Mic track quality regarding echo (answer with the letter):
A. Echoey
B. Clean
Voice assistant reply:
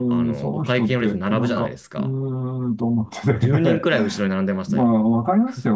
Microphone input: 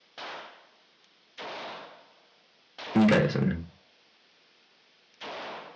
B